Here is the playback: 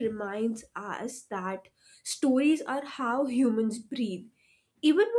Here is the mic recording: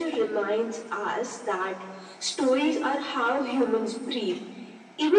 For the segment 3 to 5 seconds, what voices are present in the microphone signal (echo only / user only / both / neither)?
echo only